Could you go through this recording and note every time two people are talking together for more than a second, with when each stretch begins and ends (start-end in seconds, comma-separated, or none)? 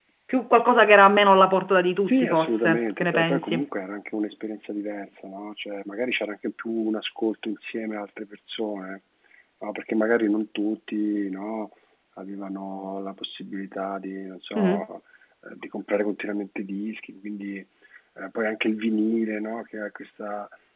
2.0-3.6